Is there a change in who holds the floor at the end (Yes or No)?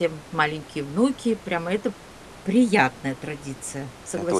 Yes